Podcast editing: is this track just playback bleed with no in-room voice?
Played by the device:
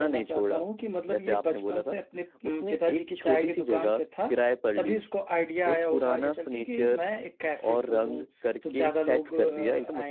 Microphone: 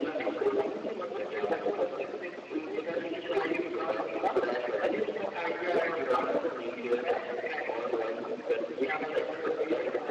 Yes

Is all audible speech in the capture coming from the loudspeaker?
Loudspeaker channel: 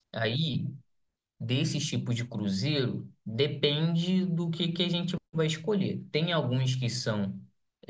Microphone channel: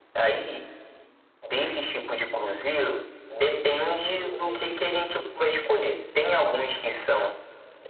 No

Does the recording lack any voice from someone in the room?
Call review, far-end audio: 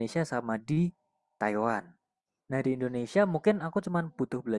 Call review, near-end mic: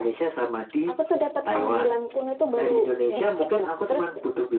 No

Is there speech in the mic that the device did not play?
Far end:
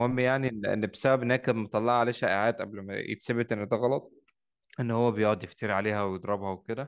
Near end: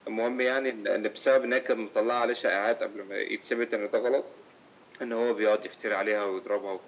No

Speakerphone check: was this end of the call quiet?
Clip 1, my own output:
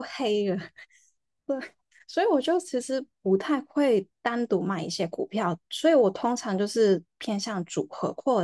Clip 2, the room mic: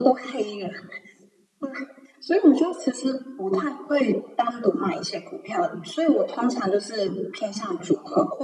Yes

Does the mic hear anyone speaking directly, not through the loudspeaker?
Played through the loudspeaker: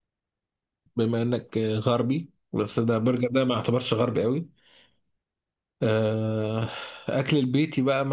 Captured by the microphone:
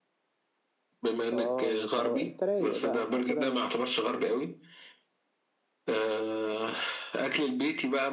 Yes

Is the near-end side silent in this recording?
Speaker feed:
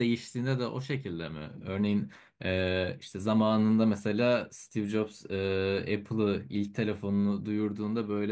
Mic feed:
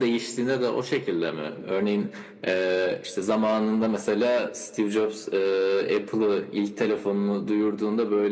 Yes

